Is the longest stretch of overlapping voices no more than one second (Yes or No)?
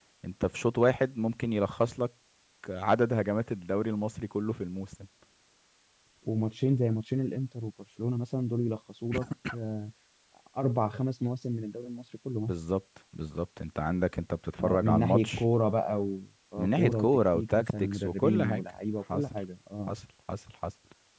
No